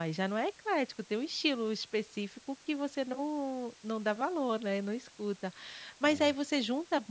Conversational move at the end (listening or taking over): listening